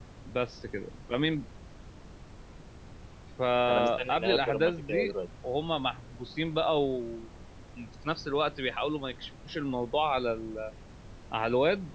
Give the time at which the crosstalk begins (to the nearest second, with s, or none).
4 s